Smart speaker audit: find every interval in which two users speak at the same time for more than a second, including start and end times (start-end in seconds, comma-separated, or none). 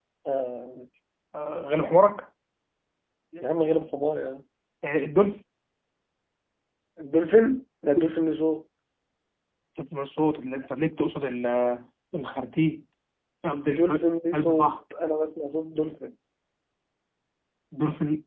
13.5-14.7